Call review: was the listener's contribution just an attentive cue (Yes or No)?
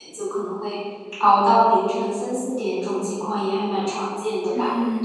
No